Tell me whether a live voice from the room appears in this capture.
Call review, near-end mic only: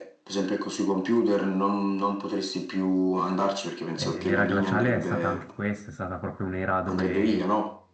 Yes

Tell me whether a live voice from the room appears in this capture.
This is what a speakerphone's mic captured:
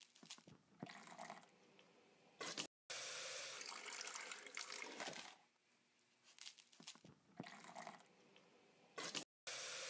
No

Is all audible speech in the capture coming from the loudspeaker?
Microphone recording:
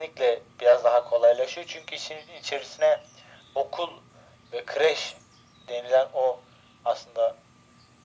Yes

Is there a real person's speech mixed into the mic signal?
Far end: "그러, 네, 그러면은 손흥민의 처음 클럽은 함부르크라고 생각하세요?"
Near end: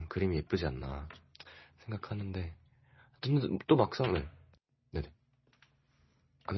Yes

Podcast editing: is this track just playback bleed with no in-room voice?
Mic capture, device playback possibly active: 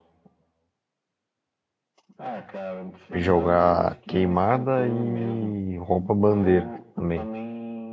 No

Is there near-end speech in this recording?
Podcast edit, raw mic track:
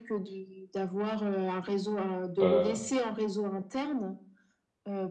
Yes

